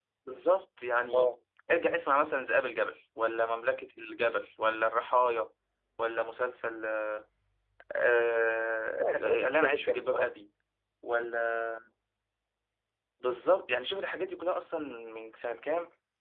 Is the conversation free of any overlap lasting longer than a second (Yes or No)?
No